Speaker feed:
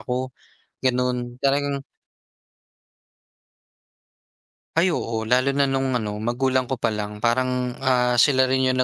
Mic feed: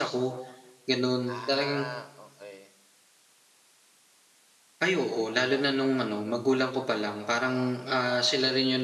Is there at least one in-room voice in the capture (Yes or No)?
Yes